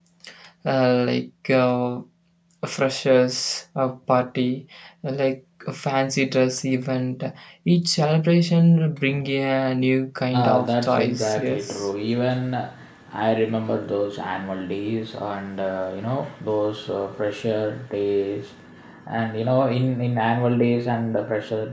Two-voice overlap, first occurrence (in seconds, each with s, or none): 10.3 s